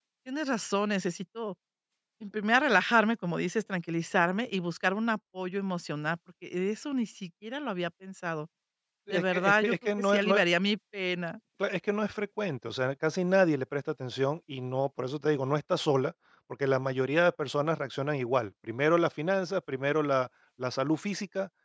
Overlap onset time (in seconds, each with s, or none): 9.1 s